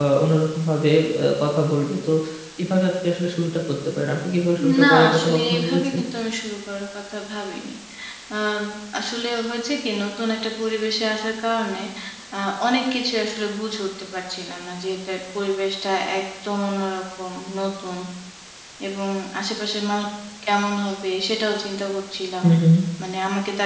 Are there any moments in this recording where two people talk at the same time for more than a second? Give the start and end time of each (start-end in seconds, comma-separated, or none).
4.8-6.0